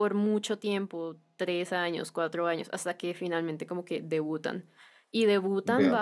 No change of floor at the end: Yes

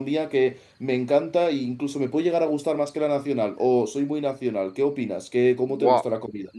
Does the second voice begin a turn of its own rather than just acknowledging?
Yes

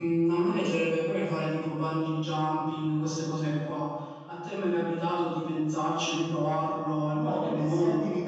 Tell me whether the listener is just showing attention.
No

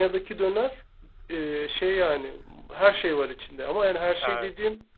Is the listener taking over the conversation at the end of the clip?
No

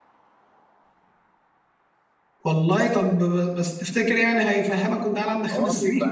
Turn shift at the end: Yes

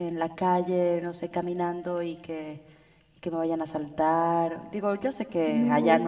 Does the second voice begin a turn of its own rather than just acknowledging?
No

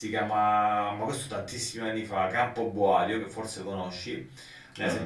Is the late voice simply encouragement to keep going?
Yes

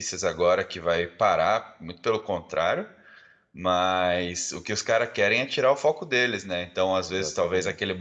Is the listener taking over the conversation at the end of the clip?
No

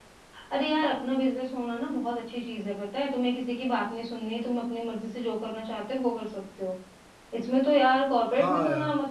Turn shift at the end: No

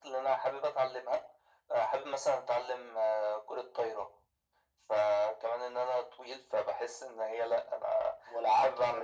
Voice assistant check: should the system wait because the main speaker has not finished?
No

